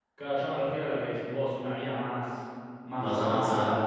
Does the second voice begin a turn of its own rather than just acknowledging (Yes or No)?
No